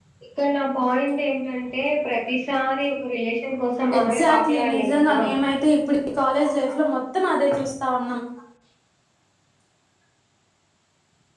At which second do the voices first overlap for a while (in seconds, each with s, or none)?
3.9 s